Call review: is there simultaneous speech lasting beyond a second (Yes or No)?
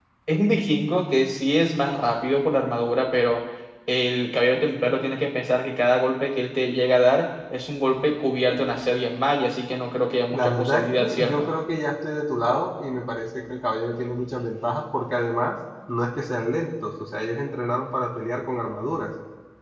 Yes